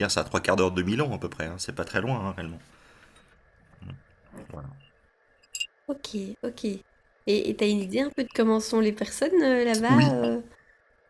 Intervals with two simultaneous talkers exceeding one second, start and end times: none

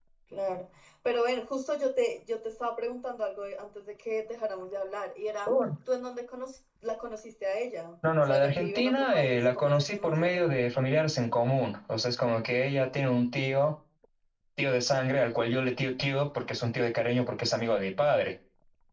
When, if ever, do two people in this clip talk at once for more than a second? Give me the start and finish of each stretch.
8.2-10.5

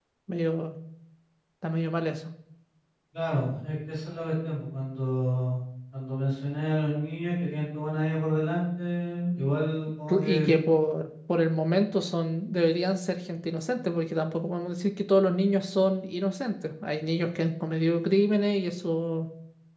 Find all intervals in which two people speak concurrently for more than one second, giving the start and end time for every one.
none

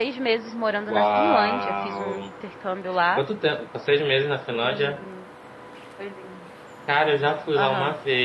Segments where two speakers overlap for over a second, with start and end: 0.9-2.2

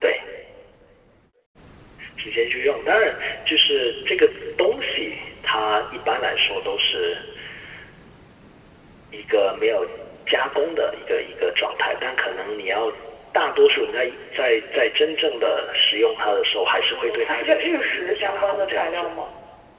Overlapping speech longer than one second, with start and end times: 16.9-19.1

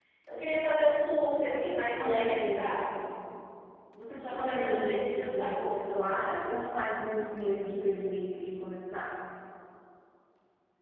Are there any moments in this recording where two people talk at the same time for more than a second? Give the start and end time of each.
1.5-2.8, 4.1-5.7

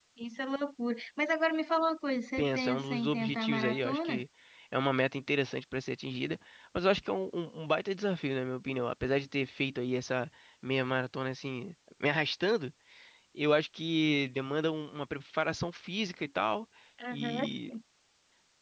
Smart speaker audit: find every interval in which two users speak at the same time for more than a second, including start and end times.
2.4-4.2

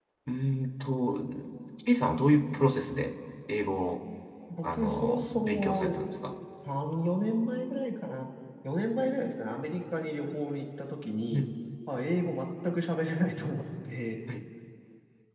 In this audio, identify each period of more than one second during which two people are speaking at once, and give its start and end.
4.6-6.0

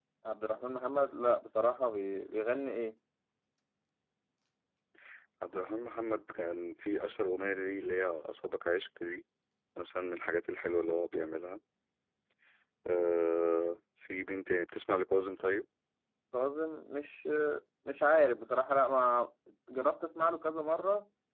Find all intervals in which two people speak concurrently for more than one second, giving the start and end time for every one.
none

